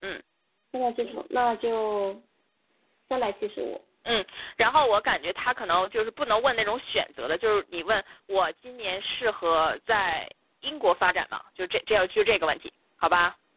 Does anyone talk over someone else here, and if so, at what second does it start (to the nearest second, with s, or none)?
none